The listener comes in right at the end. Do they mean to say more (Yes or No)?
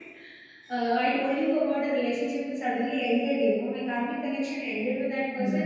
No